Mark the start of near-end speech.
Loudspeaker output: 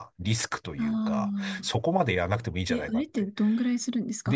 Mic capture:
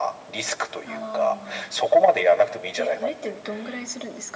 none

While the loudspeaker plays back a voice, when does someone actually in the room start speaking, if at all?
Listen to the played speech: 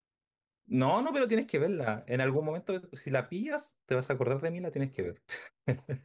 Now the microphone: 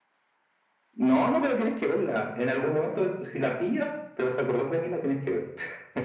none

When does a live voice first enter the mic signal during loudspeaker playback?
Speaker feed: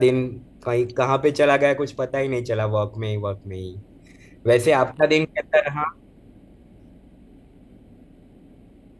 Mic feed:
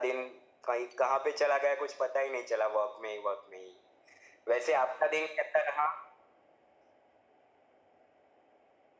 none

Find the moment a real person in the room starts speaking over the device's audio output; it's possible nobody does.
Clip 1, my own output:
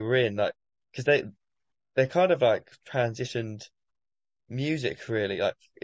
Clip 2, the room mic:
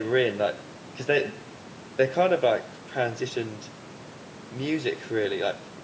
none

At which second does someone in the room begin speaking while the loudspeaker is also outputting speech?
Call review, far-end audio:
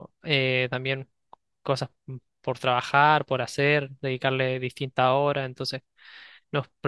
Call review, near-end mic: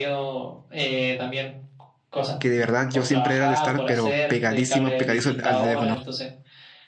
2.4 s

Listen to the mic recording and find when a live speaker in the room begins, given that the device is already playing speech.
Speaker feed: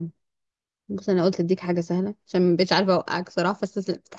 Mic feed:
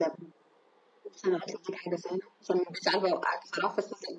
none

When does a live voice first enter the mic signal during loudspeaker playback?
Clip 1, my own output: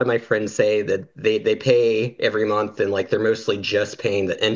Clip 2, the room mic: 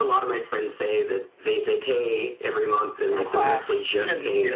3.0 s

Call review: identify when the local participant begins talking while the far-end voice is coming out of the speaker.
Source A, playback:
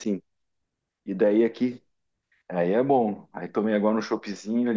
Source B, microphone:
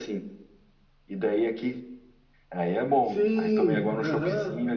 3.0 s

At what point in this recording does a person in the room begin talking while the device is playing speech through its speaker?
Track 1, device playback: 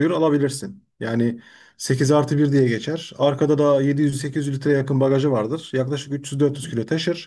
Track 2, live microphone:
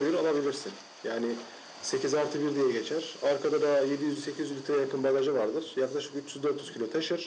none

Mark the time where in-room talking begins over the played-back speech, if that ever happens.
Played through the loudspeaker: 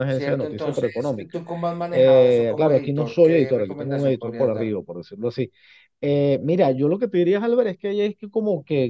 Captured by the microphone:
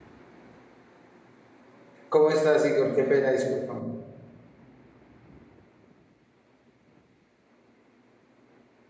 2.1 s

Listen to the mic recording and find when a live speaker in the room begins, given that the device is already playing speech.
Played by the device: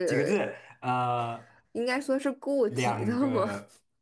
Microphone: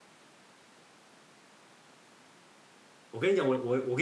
3.1 s

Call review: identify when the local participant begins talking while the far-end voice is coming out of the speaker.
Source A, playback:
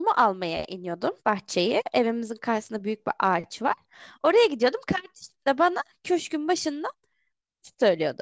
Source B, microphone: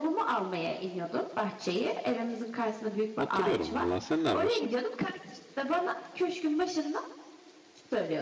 3.2 s

